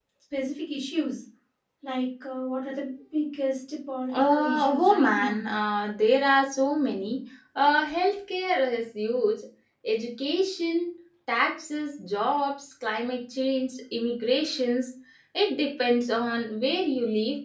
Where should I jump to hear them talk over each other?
4.1 s

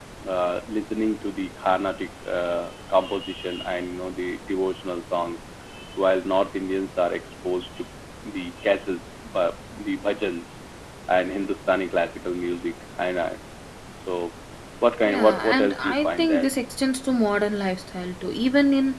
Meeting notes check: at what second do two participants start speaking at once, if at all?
15.0 s

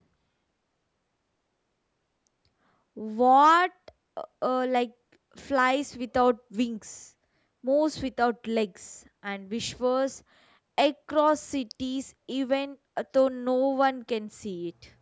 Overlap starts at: none

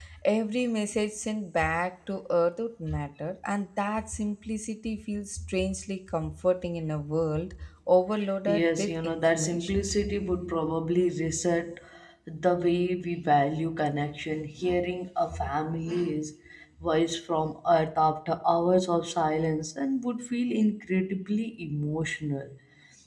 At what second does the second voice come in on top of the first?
8.5 s

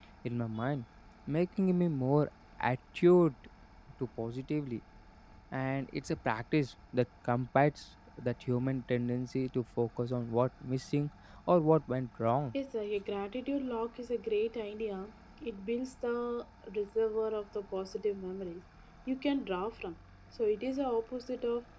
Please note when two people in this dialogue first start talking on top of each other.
none

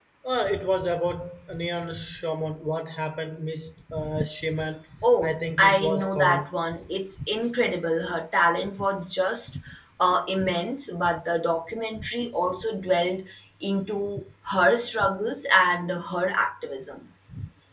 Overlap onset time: 5.0 s

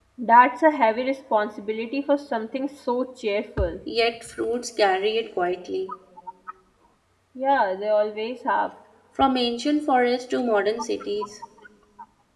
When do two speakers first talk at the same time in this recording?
none

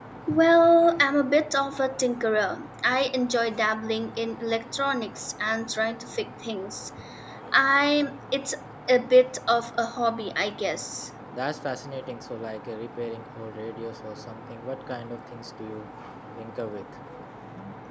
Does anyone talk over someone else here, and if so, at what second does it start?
none

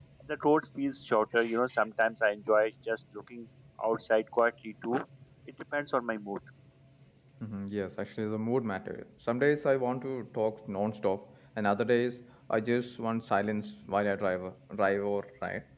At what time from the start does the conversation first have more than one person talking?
none

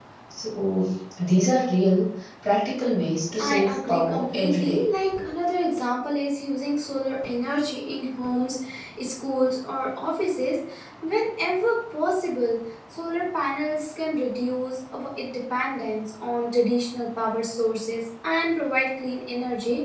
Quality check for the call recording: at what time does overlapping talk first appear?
3.3 s

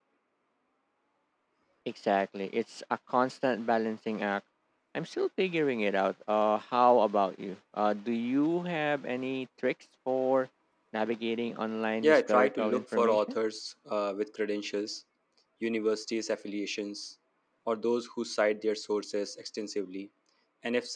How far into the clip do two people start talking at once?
12.0 s

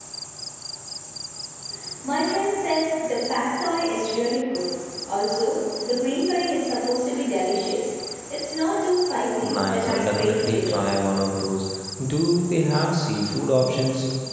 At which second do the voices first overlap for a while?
9.4 s

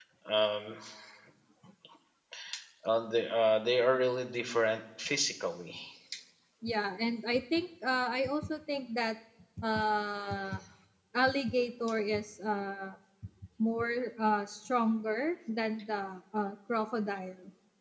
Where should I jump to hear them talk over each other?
none

